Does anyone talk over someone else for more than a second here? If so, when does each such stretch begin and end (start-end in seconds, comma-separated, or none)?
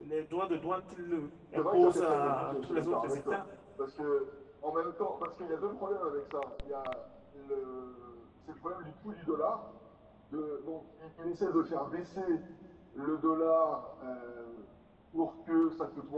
1.6-3.4